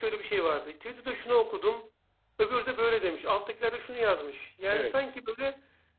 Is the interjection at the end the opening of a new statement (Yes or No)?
No